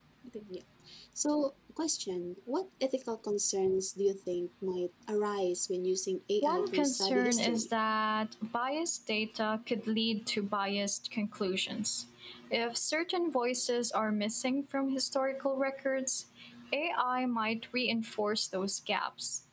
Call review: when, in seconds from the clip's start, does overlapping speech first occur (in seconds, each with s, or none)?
6.4 s